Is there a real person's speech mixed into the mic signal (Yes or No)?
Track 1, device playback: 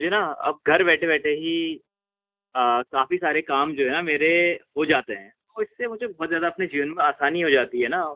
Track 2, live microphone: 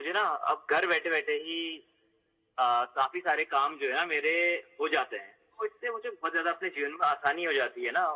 No